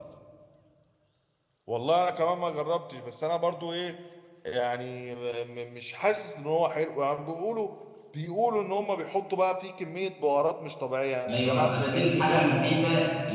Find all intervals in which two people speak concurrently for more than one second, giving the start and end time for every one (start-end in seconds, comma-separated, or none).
11.3-12.5